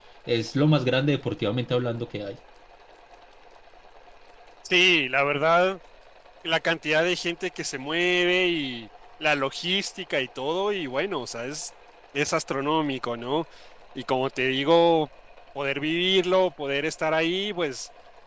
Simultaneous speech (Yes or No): No